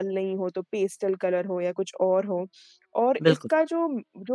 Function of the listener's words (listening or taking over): listening